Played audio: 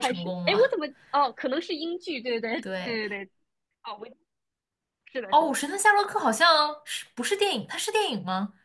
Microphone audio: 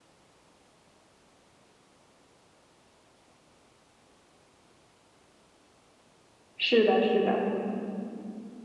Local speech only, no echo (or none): 是的，是的。